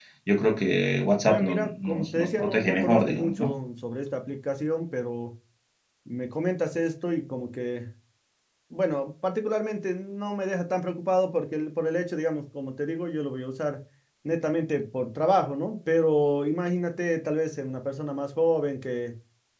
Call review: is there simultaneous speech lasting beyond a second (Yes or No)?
Yes